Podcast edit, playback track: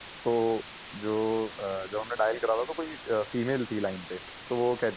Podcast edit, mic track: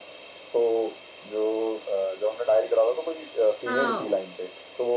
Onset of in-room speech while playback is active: 4 s

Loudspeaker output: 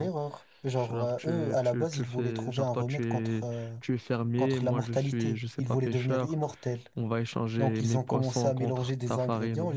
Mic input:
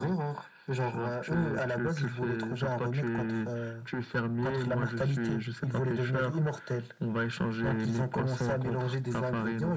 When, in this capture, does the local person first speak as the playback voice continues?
none

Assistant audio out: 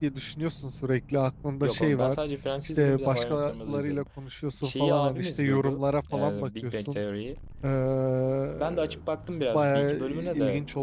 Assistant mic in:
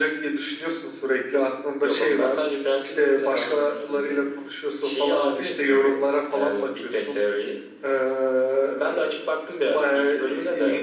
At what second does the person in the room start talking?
none

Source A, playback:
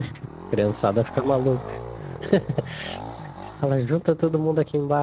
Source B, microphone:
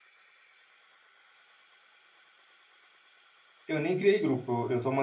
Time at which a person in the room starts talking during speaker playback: 4 s

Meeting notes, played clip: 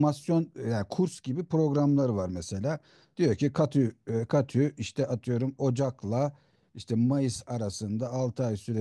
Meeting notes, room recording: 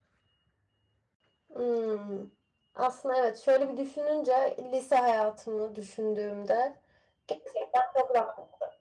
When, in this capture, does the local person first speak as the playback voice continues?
2 s

